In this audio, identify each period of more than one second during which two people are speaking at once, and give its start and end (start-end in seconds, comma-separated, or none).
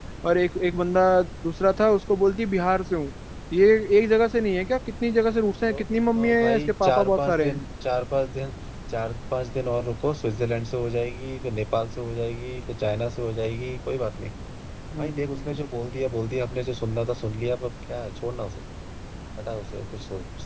6.2-7.6